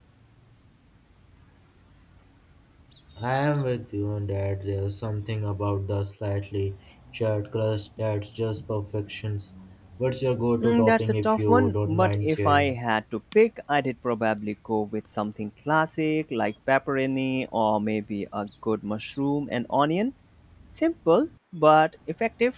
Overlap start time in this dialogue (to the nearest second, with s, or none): 11 s